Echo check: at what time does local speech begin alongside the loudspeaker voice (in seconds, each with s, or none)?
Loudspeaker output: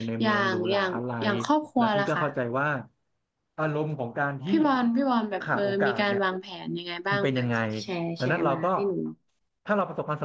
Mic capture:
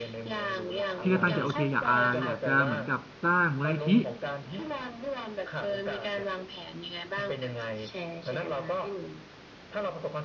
1.0 s